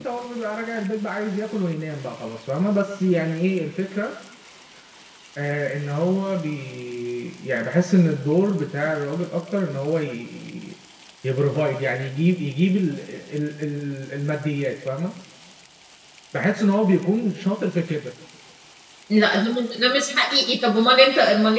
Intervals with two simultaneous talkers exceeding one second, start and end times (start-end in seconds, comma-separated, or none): none